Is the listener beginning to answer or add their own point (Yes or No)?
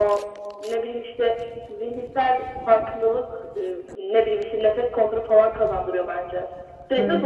Yes